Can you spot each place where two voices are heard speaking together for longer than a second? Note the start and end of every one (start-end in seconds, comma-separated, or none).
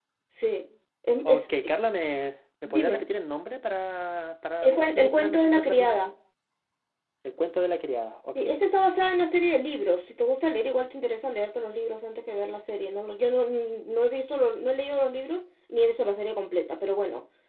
4.6-6.0